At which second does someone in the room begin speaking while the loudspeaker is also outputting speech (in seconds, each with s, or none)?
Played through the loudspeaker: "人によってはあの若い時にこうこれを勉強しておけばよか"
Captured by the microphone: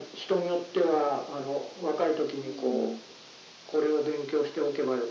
2.4 s